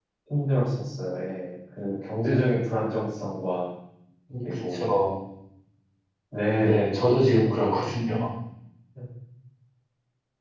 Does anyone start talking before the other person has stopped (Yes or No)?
Yes